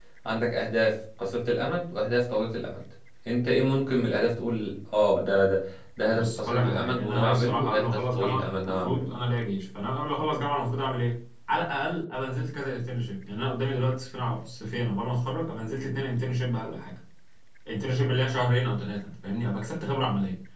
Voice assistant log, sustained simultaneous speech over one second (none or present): present